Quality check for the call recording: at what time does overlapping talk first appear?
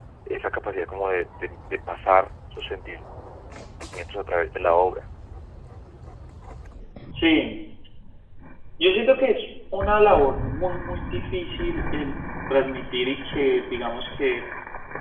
none

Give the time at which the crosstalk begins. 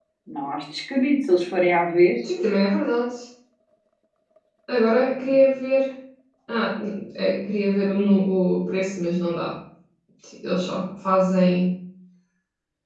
none

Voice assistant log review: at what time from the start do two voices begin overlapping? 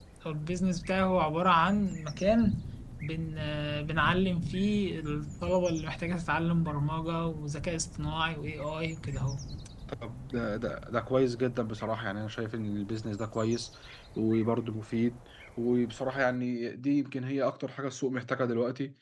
none

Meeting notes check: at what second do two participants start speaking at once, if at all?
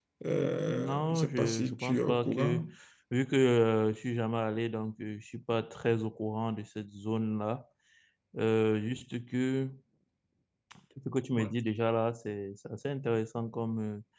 0.7 s

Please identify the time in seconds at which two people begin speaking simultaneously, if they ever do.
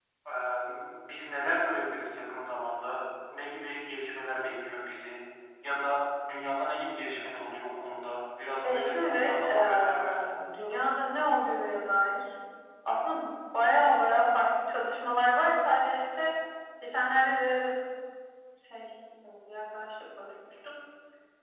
8.6 s

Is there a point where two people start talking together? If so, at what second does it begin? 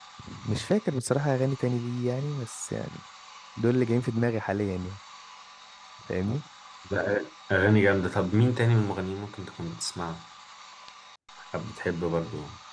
none

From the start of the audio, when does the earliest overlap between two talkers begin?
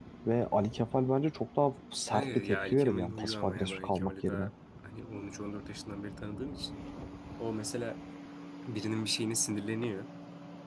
2.1 s

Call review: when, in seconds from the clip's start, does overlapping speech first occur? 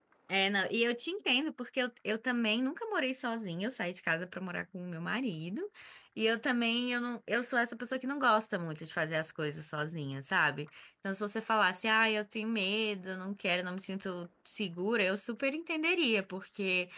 none

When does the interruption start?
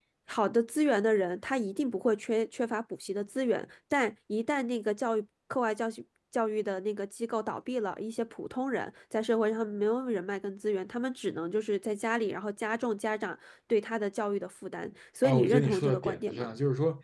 15.2 s

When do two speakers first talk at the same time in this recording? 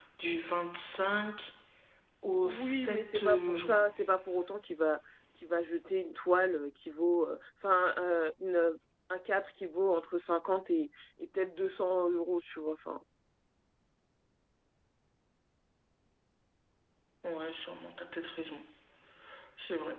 2.4 s

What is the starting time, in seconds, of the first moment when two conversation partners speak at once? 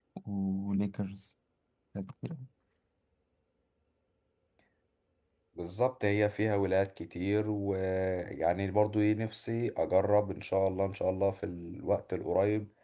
none

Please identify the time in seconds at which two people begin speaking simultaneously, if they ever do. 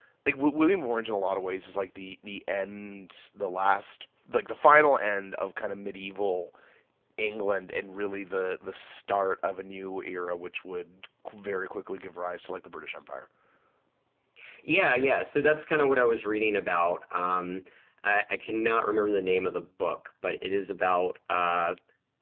none

